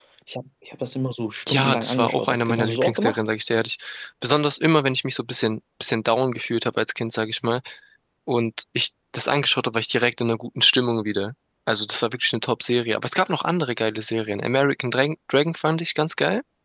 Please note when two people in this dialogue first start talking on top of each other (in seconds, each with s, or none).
1.5 s